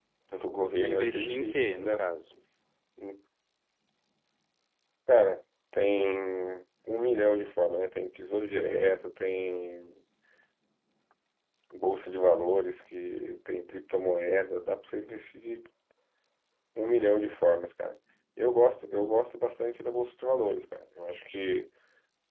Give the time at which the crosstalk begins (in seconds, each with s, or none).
0.8 s